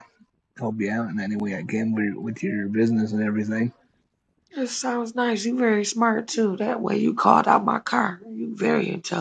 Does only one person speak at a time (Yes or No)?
Yes